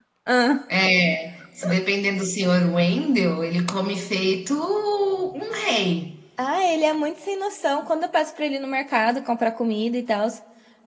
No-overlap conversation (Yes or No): Yes